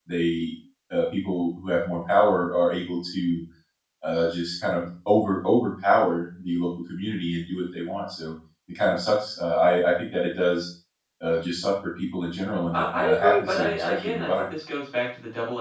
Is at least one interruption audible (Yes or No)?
Yes